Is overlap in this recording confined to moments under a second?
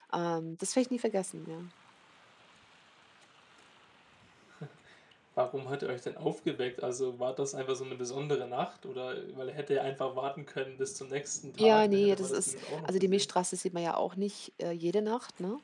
No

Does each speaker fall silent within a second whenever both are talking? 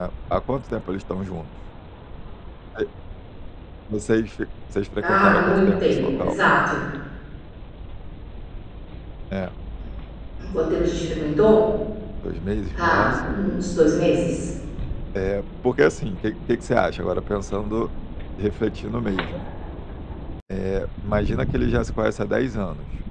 No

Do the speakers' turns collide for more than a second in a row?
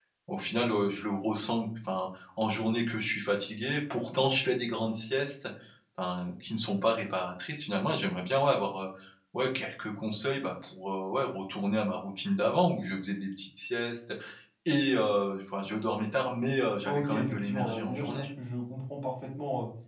Yes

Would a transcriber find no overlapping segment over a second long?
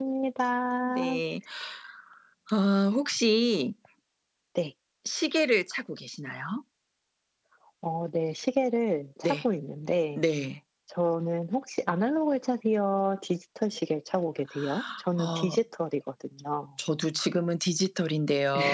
Yes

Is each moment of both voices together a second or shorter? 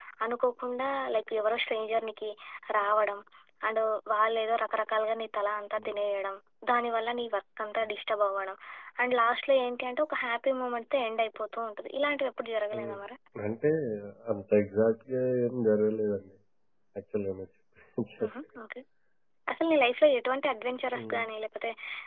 Yes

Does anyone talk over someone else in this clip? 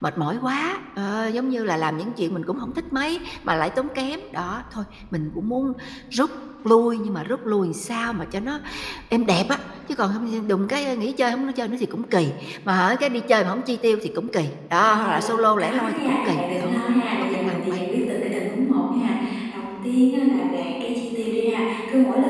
Yes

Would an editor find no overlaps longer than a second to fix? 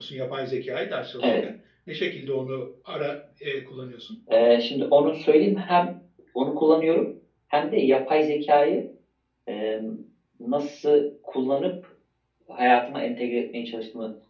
Yes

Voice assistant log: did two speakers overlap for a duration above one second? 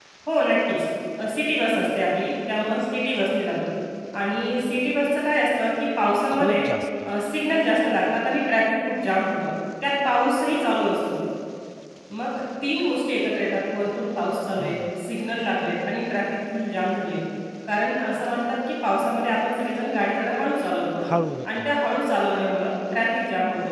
No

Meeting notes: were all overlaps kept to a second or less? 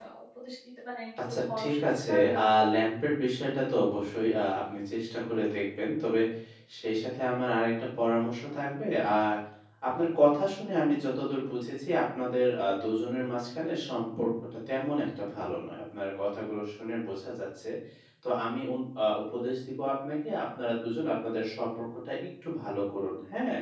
No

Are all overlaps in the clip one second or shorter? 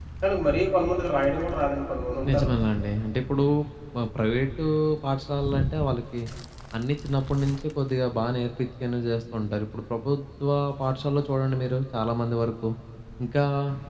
Yes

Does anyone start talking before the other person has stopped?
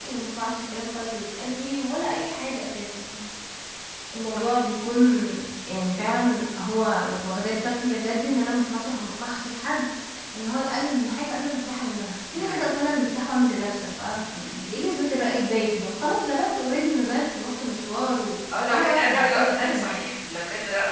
Yes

